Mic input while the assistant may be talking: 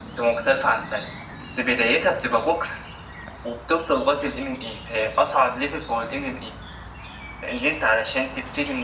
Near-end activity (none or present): none